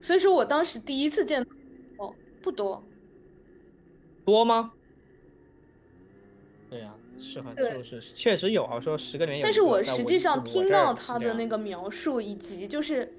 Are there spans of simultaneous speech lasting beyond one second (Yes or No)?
Yes